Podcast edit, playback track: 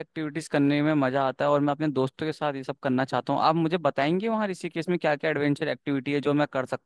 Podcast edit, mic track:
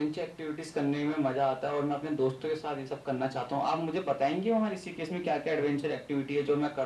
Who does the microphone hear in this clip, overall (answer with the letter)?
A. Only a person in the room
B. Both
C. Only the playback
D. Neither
C